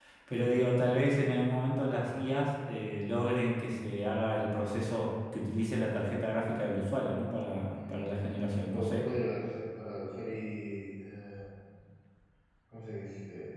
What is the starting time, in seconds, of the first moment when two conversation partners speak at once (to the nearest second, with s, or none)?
8 s